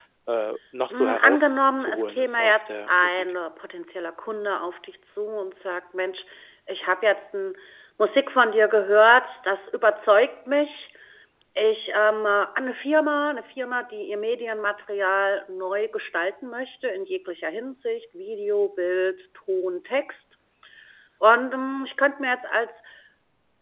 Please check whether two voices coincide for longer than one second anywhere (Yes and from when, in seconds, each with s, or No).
Yes, from 0.9 s